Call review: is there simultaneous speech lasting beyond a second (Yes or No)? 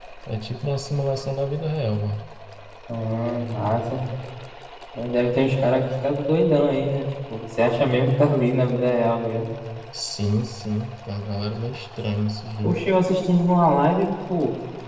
No